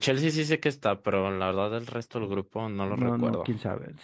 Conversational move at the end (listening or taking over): taking over